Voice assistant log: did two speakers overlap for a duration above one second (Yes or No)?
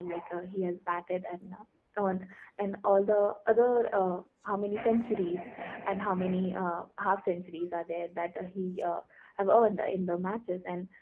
No